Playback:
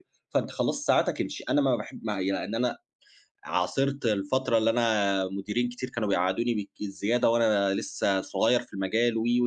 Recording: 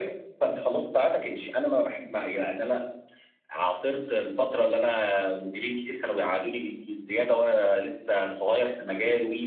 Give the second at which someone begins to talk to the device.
none

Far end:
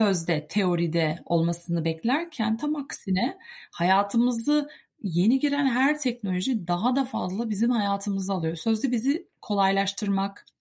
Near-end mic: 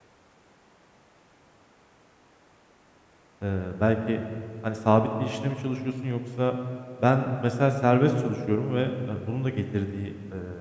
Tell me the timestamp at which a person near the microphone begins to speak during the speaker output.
3.4 s

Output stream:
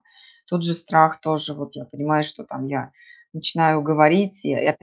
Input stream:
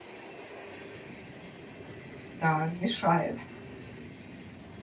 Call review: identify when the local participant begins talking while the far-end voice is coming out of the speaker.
2.4 s

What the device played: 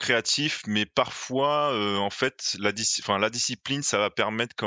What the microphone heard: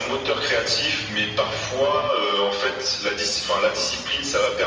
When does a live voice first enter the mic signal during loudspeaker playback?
none

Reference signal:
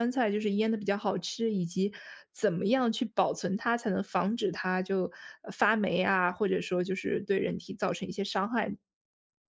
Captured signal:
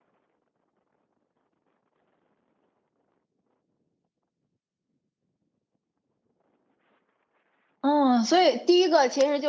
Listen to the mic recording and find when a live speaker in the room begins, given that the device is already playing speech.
7.8 s

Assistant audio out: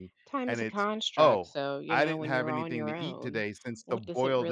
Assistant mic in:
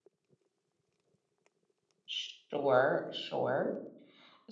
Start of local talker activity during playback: 2.1 s

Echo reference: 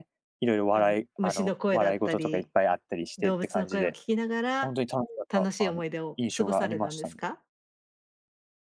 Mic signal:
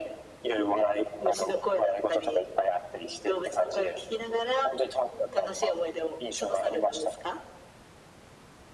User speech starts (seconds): none

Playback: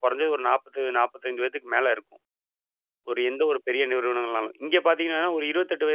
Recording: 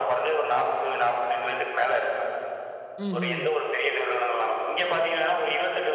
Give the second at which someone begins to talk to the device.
3.1 s

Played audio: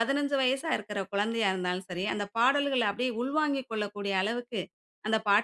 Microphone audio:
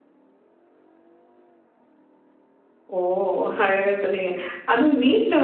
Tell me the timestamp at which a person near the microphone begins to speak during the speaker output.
3.0 s

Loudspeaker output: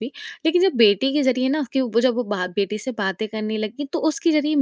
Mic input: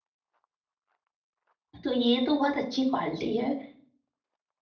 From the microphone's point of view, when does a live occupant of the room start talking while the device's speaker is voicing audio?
1.8 s

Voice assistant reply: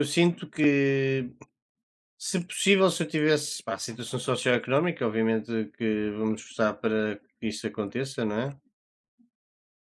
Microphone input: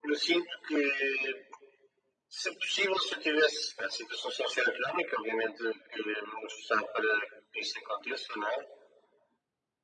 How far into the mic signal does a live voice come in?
none

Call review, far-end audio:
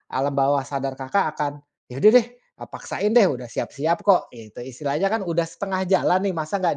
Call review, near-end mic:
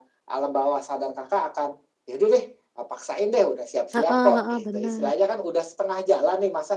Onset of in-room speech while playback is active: 3.9 s

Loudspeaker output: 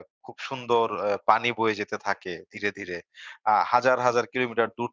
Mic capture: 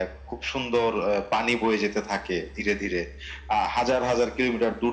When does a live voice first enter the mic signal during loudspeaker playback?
none

